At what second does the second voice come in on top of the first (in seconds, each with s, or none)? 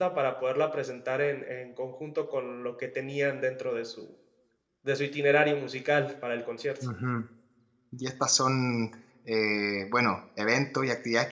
none